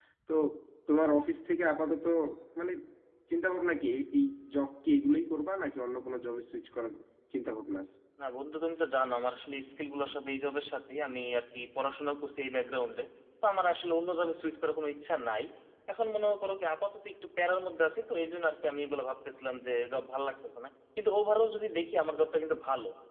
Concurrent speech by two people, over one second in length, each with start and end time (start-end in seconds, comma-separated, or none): none